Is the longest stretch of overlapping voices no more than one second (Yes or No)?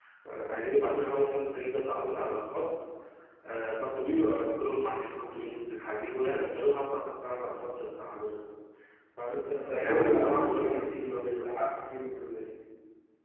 No